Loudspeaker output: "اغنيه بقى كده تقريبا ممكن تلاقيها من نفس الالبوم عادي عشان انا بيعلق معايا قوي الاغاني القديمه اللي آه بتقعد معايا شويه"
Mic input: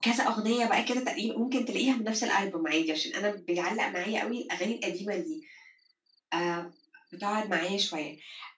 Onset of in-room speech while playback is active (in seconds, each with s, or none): none